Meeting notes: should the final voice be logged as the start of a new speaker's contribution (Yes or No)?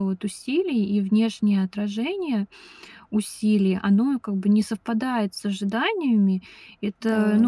No